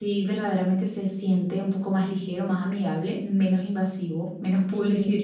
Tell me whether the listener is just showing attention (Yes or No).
No